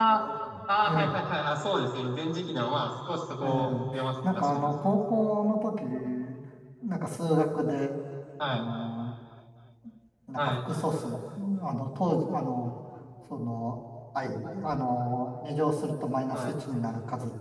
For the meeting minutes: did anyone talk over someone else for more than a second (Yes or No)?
Yes